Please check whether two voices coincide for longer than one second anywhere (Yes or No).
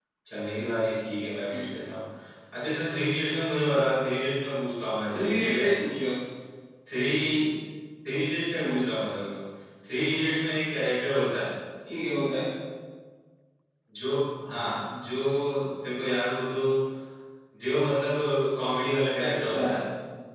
No